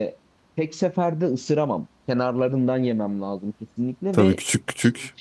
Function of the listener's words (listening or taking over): taking over